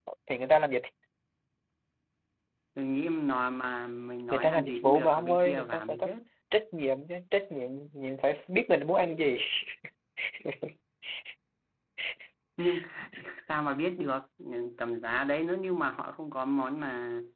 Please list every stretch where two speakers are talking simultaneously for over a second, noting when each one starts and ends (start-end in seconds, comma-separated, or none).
4.3-6.1